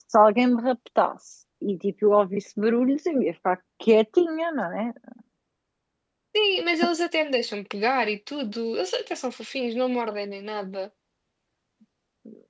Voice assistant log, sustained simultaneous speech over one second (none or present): none